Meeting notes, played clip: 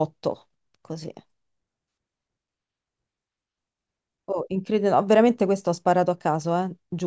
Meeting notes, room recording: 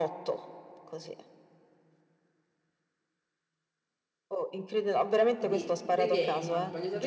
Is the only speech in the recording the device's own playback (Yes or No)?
No